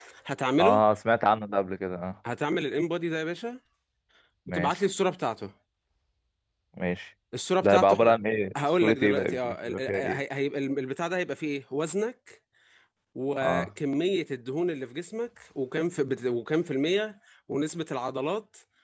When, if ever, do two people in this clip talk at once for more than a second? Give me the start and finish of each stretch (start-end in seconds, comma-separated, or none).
8.8-10.2